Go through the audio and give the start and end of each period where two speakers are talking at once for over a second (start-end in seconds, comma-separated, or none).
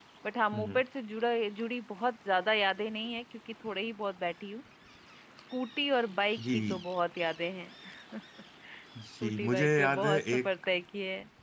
9.2-10.5